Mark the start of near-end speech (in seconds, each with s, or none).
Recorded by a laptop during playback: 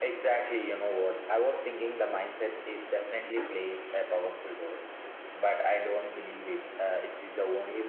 none